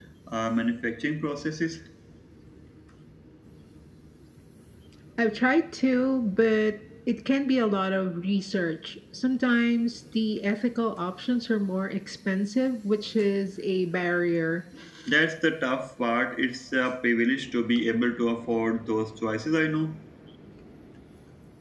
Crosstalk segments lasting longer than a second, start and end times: none

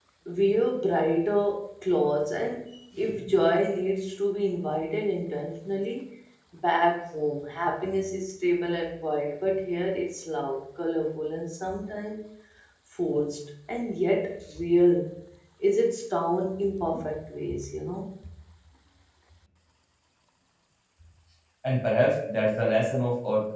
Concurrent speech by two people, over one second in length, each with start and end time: none

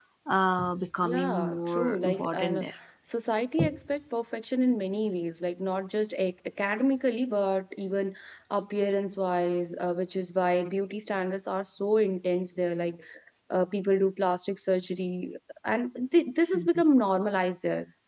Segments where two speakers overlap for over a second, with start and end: 1.0-2.6

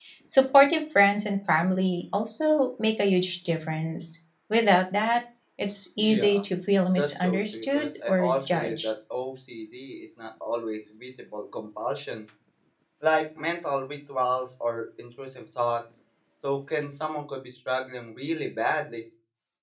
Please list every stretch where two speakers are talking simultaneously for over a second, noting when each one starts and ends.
7.0-8.9

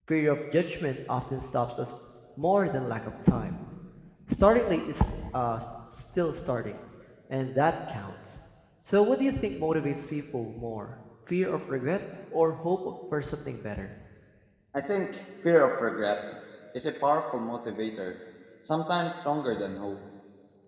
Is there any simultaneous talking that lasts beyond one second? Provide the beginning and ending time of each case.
none

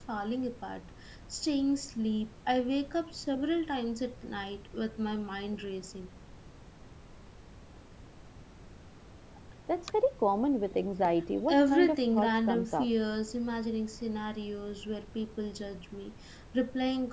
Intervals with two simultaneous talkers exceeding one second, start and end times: 11.5-12.9

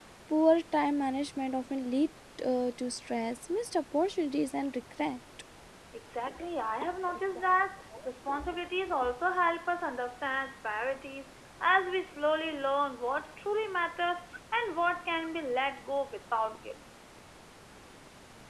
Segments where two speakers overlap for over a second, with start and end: none

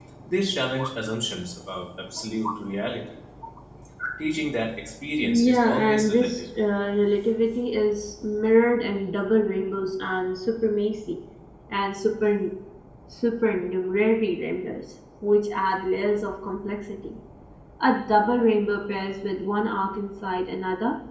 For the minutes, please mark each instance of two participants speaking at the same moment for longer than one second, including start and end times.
5.2-6.4

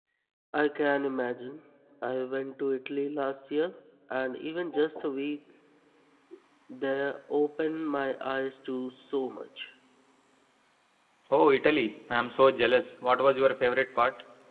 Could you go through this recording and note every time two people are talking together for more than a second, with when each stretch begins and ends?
none

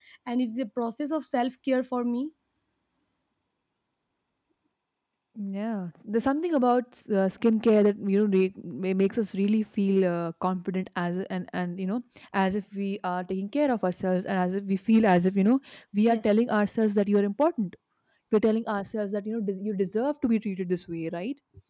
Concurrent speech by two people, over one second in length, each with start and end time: none

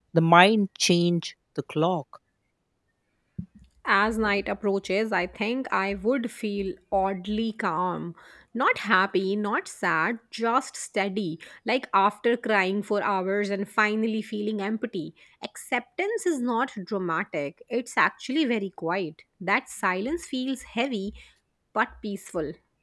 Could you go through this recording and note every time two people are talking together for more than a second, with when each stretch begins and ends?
none

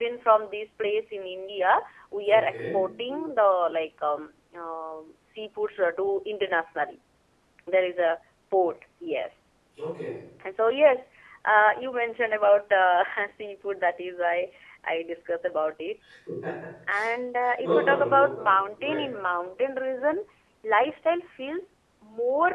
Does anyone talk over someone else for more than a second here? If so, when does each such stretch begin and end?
17.7-19.0

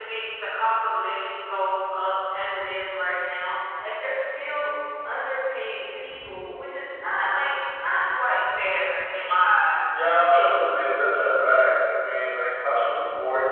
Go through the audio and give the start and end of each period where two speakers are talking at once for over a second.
none

